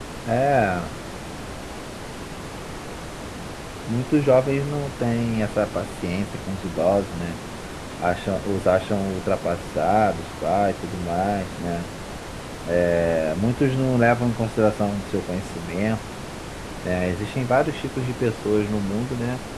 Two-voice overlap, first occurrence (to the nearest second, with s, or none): none